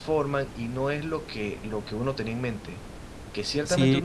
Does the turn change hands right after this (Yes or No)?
No